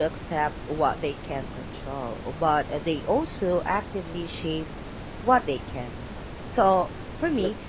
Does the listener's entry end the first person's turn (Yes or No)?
No